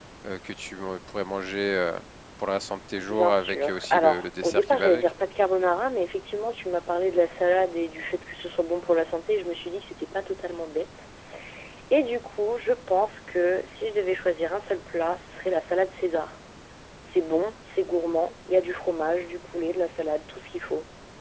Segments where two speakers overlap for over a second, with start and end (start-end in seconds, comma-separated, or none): 3.0-5.1